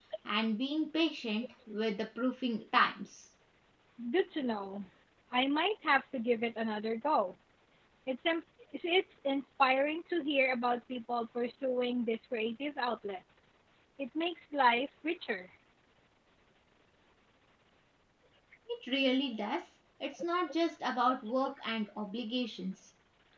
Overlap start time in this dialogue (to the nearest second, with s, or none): none